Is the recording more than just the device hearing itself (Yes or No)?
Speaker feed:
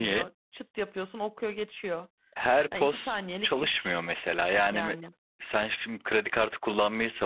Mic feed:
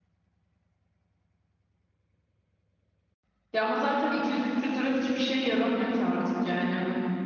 Yes